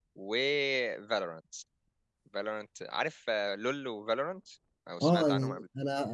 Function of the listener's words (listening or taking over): taking over